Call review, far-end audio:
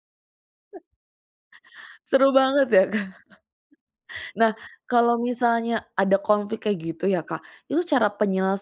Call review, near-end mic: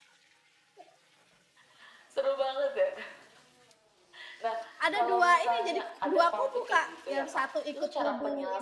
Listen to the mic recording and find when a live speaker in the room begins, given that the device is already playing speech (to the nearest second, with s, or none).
5 s